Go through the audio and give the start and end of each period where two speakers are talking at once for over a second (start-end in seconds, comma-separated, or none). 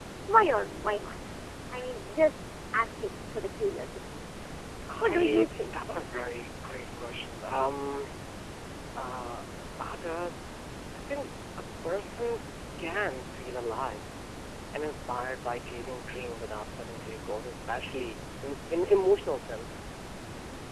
5.0-6.3